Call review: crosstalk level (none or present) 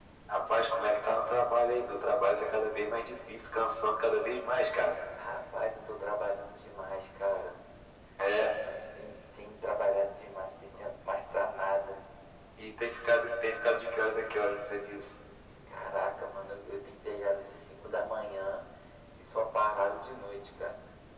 none